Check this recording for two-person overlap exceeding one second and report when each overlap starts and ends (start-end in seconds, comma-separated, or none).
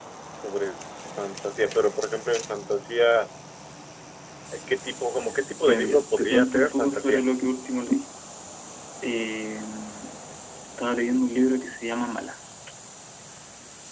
5.6-7.2